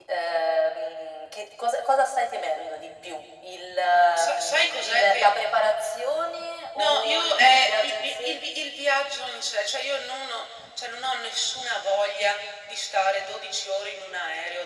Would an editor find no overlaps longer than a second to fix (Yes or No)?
No